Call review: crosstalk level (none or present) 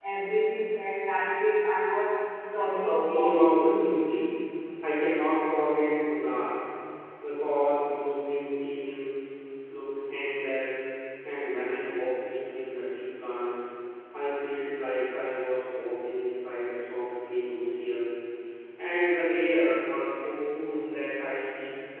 present